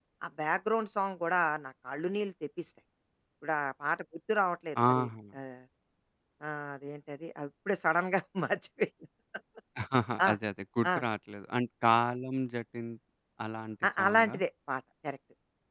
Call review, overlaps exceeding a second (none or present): none